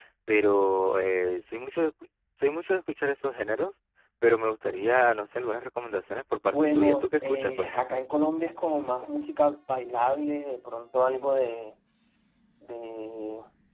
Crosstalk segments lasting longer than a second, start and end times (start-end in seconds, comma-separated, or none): 6.5-8.0